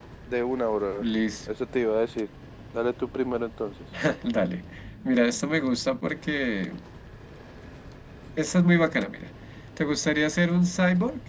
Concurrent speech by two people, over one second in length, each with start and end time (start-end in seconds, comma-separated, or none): none